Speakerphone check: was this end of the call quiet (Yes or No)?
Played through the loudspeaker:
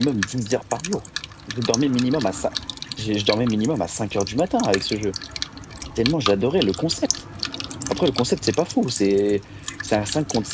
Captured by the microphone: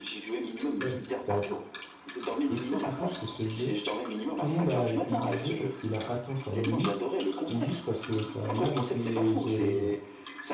No